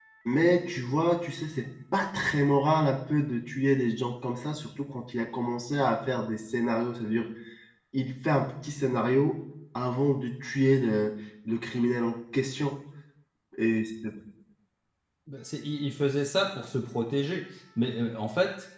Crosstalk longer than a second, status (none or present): none